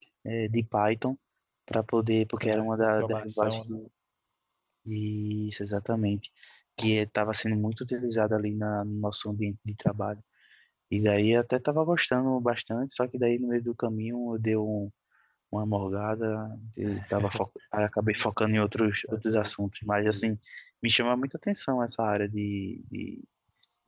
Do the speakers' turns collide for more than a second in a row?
Yes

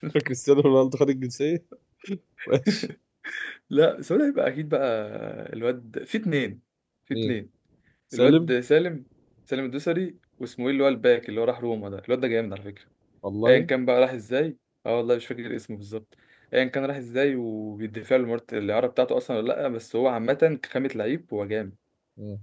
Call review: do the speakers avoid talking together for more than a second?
Yes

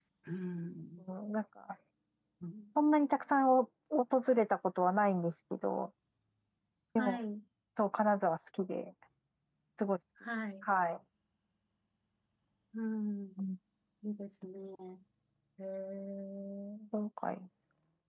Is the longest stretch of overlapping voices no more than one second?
Yes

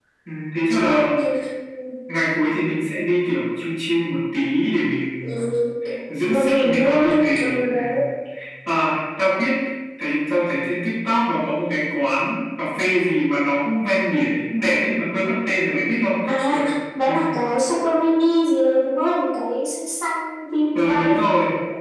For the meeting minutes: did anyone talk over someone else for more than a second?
Yes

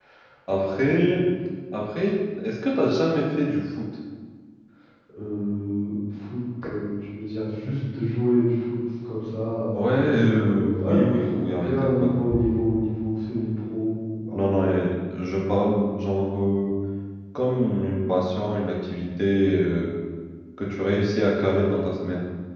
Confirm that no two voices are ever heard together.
No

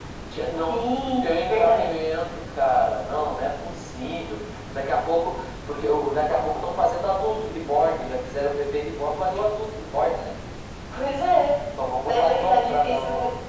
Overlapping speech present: Yes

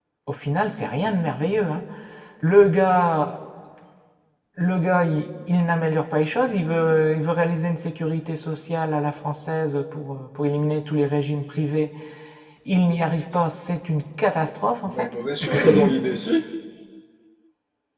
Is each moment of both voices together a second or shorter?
Yes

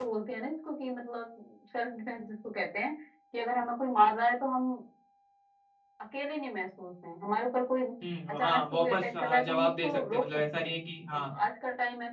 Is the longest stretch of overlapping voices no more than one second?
No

